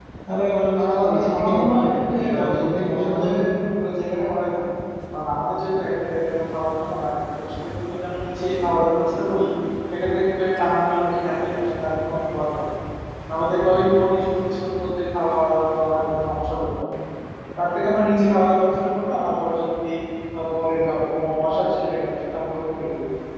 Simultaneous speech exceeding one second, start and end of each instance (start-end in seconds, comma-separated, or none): 0.8-3.5